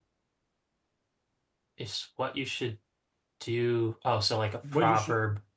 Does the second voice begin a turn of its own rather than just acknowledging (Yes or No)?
Yes